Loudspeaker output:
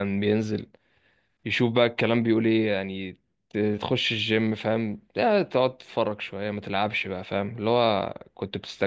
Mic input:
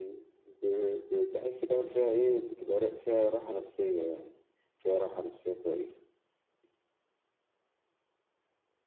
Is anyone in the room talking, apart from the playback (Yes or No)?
Yes